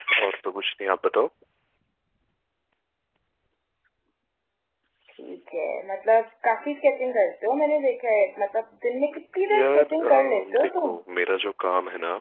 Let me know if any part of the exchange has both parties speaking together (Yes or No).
Yes